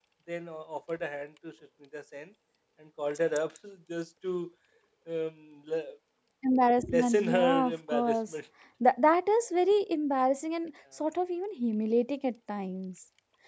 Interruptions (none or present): present